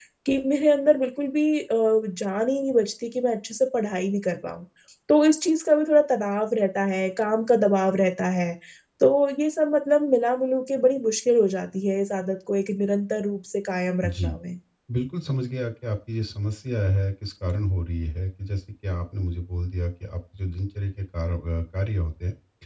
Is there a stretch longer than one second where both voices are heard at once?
No

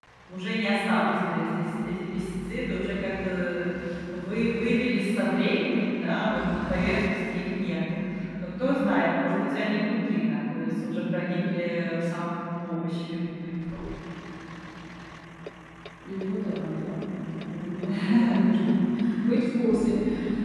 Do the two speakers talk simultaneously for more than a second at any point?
No

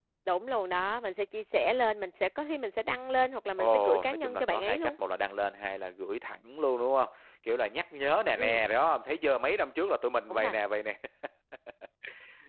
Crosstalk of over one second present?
Yes, from 3.5 s

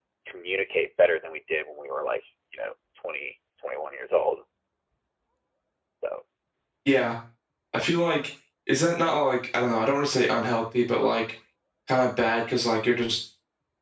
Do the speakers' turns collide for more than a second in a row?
No

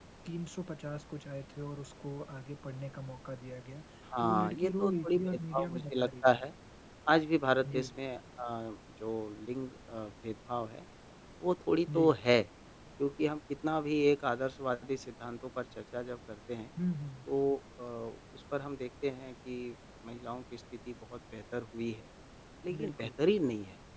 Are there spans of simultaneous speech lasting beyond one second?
Yes, from 4.2 s

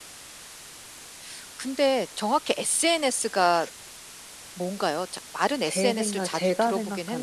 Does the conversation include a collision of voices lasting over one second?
Yes, from 5.6 s

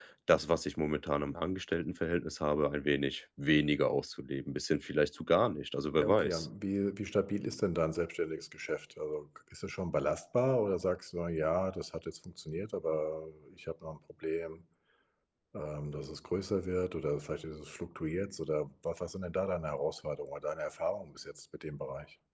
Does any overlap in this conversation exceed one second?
No

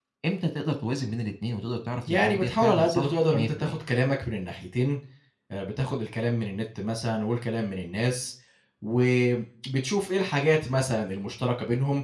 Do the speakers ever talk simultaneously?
Yes, from 2.1 s

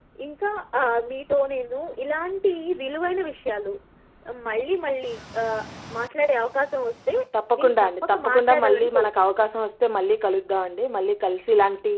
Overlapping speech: Yes, from 7.6 s

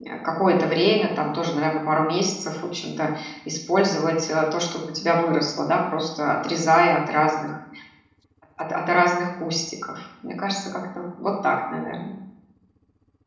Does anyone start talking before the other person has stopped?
No

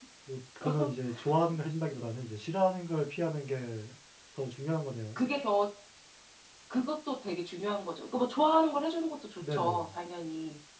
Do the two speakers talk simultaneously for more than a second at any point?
No

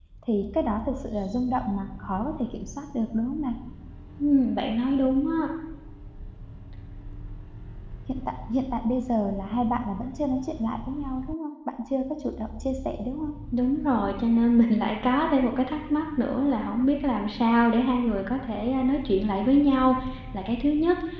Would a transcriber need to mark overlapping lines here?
No

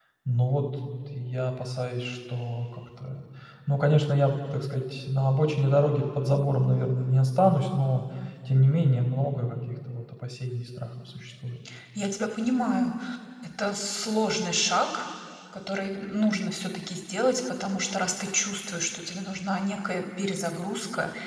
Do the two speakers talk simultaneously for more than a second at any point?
No

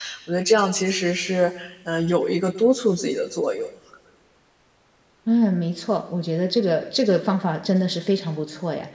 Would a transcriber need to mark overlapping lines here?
No

